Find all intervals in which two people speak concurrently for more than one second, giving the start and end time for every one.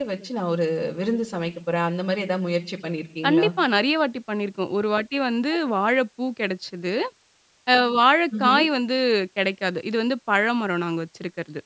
none

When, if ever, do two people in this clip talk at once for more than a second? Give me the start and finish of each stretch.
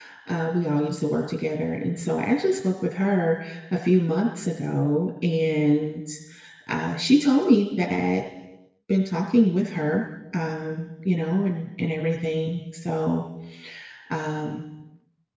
none

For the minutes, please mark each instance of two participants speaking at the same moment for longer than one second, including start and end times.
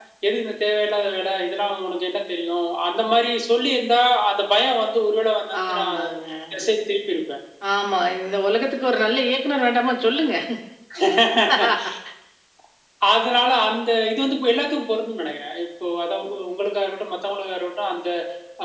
none

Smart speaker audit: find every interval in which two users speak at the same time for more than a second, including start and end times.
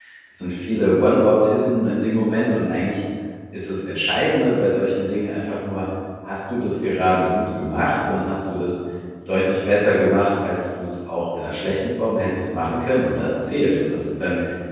none

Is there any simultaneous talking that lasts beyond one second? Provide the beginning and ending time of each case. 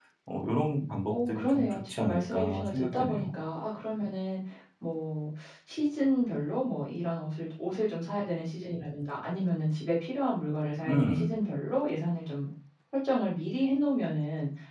1.1-3.3

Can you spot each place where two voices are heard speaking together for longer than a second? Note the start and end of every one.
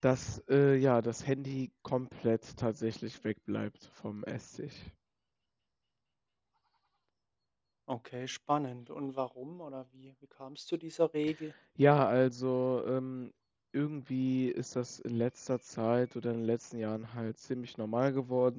none

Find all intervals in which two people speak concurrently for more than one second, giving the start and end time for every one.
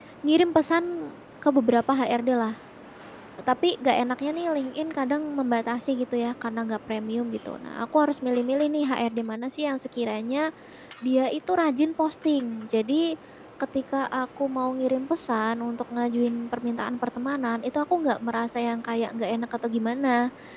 none

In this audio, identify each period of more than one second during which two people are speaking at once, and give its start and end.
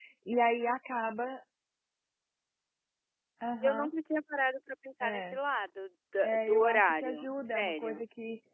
6.2-8.0

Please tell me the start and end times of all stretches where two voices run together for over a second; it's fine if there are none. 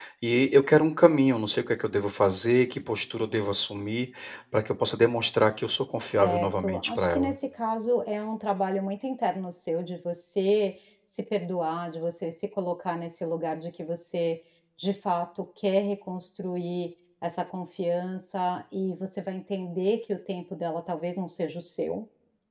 6.0-7.3

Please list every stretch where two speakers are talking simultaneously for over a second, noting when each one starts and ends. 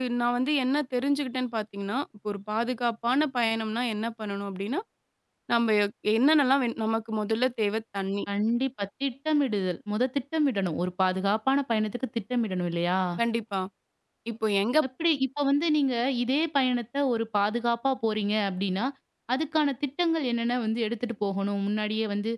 none

